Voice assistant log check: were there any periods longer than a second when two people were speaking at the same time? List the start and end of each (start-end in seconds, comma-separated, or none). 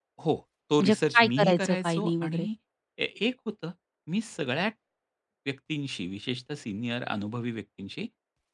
0.8-2.5